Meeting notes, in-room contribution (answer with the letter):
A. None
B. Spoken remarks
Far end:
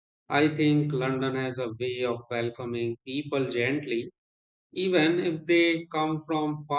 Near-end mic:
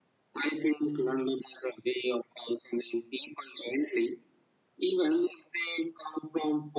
A